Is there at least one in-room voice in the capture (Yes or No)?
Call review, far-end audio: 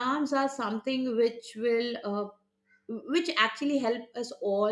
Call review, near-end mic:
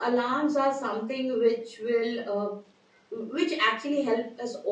No